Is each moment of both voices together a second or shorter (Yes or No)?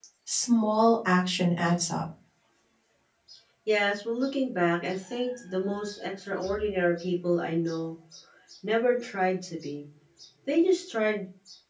Yes